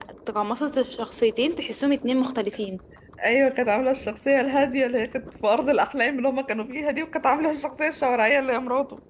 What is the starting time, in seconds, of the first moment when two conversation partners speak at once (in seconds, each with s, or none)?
none